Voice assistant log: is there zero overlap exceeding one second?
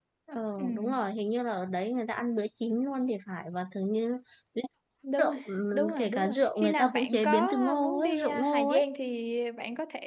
No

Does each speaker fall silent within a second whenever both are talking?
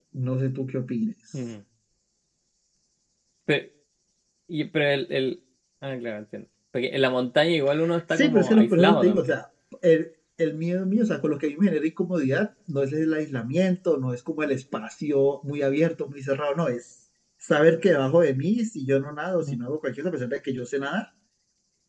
No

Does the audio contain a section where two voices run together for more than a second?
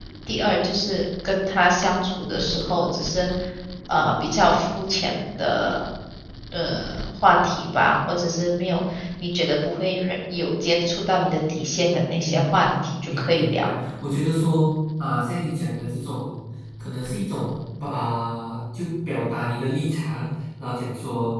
Yes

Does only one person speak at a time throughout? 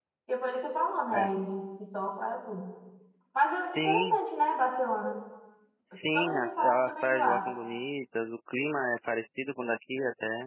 No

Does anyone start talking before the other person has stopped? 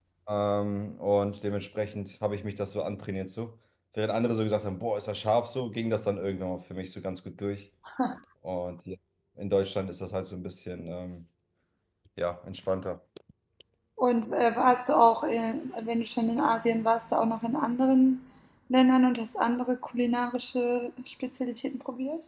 No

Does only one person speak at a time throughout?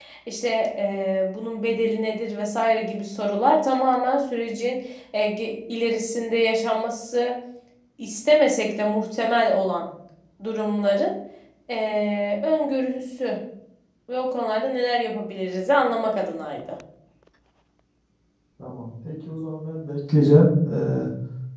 Yes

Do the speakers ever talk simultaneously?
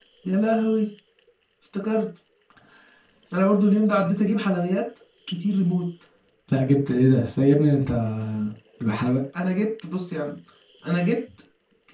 No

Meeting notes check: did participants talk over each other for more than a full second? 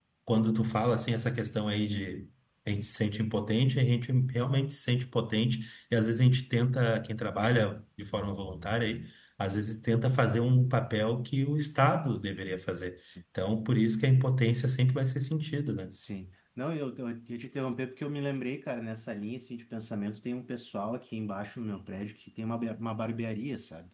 No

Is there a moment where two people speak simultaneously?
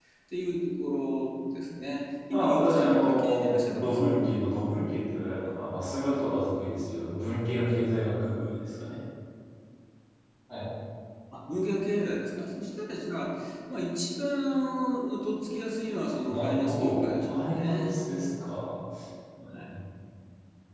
Yes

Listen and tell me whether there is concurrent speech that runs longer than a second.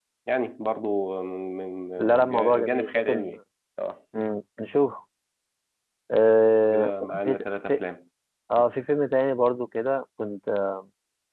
Yes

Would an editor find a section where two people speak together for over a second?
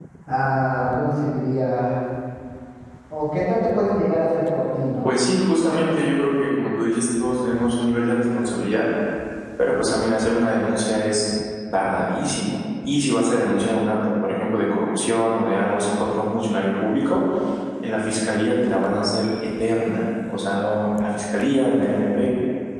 No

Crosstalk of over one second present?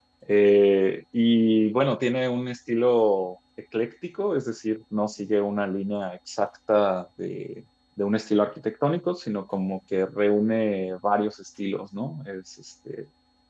No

